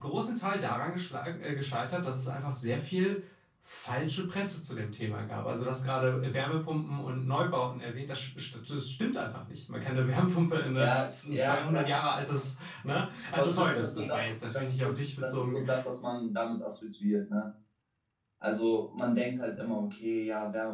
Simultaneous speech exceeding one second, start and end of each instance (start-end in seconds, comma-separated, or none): 10.8-12.0, 13.4-15.6